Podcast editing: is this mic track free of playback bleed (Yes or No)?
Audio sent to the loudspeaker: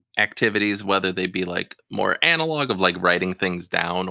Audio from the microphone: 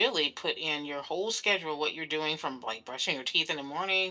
Yes